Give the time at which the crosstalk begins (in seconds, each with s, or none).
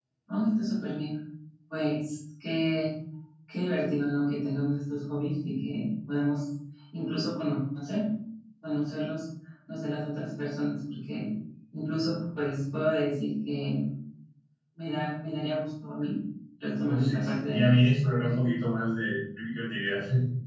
16.8 s